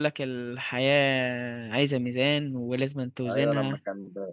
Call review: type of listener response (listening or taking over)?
taking over